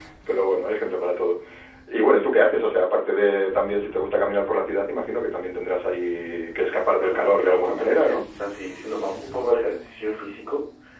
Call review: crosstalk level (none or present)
present